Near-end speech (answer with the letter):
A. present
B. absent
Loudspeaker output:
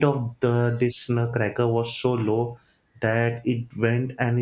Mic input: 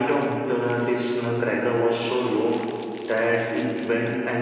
B